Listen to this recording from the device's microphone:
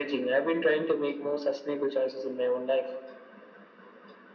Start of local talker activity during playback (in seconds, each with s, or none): none